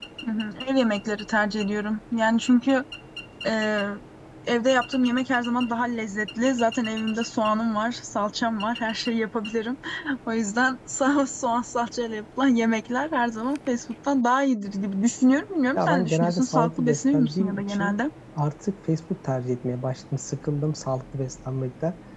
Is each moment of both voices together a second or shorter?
No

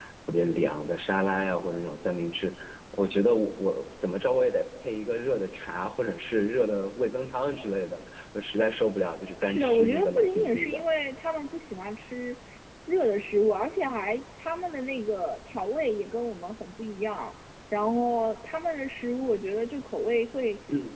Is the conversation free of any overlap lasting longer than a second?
No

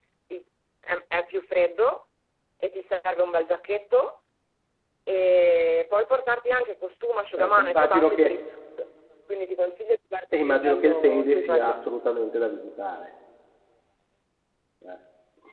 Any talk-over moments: Yes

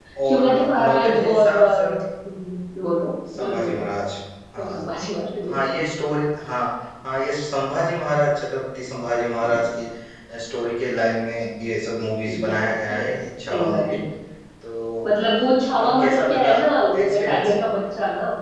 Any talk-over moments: Yes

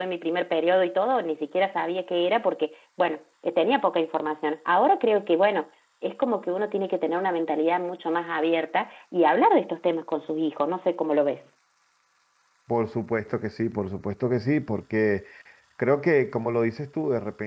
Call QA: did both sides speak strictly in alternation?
Yes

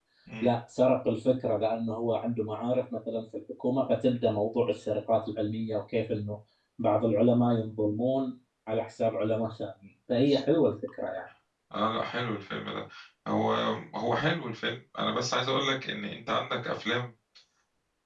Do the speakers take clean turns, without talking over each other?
Yes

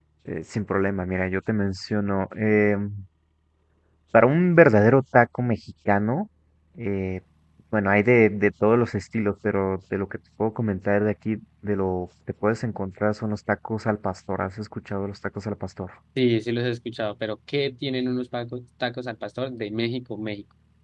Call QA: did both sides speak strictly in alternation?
Yes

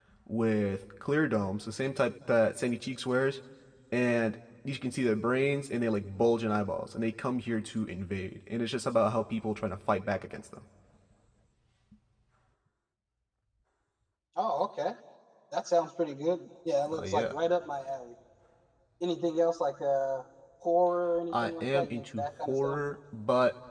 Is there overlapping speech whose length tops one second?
Yes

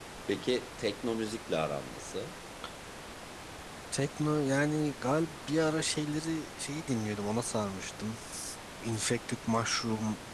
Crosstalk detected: No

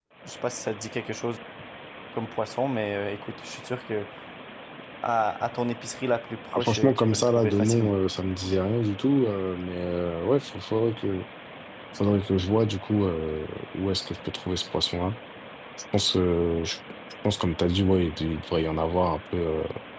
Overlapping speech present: Yes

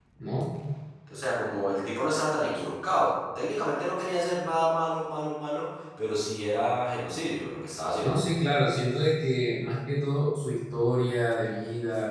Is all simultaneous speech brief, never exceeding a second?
Yes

